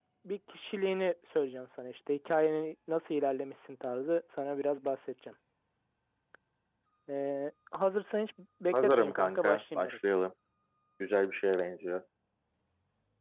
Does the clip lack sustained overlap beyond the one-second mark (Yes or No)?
No